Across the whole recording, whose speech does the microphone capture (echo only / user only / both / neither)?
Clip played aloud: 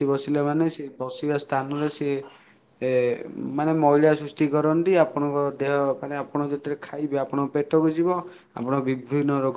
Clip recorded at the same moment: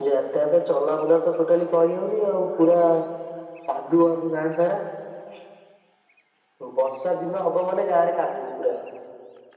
user only